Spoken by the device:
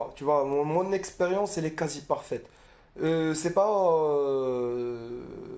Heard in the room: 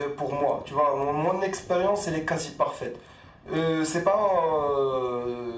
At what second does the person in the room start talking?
none

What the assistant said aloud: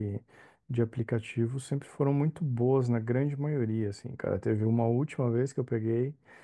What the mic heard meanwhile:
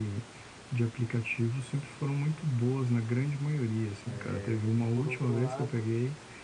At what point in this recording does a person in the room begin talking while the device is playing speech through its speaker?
4.0 s

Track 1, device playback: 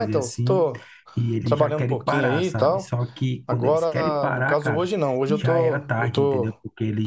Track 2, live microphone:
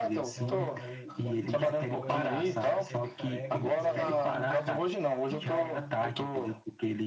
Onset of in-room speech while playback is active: 0.3 s

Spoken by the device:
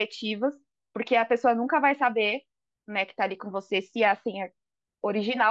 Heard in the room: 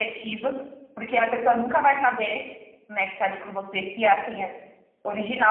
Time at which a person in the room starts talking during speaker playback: none

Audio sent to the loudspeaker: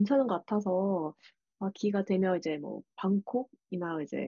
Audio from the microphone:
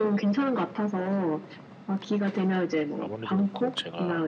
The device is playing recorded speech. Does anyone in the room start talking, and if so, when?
3.0 s

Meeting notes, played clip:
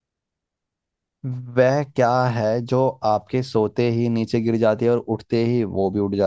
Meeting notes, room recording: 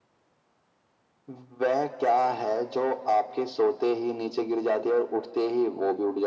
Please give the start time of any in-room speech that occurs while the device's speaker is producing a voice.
none

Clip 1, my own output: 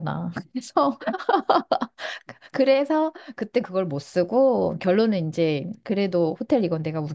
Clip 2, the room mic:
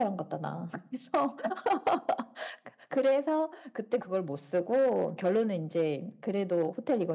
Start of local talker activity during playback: none

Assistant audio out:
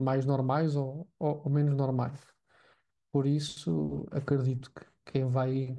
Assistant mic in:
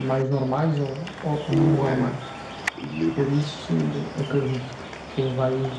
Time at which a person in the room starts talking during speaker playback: 1.5 s

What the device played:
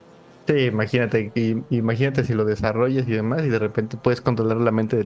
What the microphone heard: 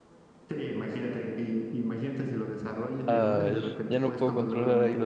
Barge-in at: 3.0 s

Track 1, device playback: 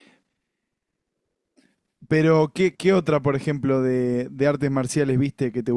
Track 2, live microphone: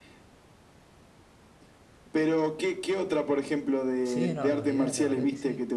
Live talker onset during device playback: 4.0 s

